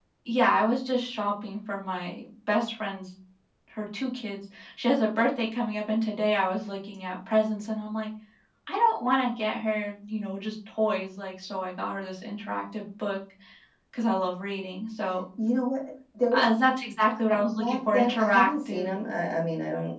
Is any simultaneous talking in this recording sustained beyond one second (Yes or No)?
Yes